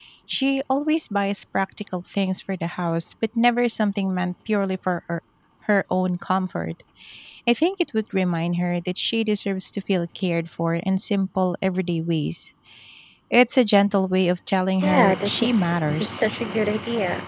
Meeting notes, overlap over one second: present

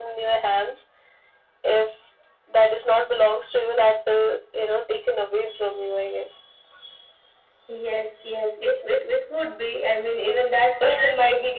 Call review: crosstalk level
none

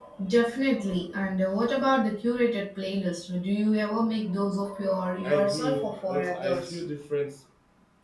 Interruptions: present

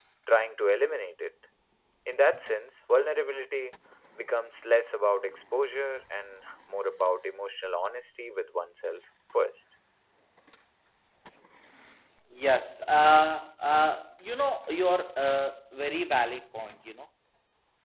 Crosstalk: none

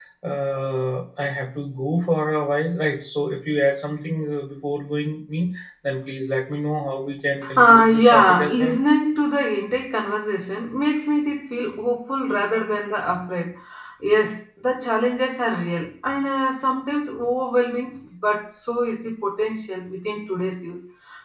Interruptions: present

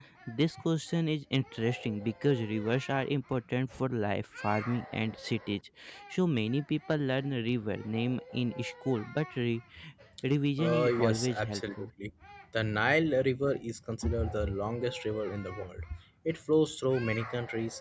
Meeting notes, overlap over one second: present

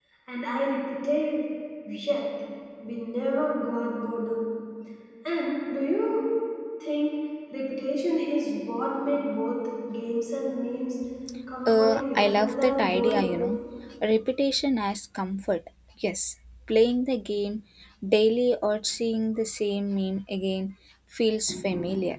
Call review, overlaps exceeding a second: present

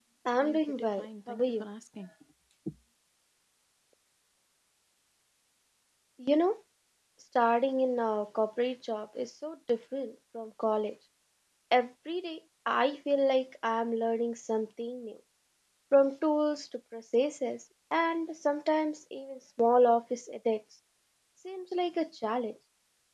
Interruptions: present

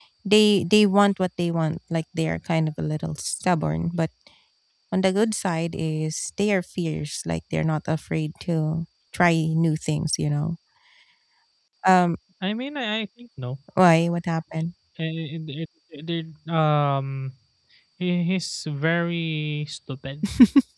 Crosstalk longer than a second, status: none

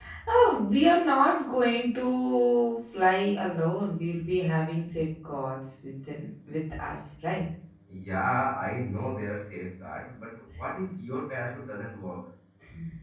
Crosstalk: none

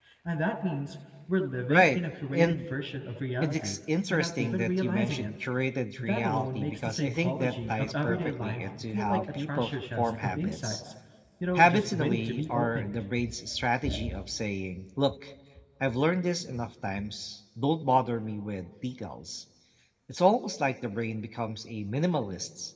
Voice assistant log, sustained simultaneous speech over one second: present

